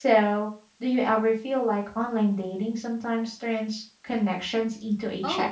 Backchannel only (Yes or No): No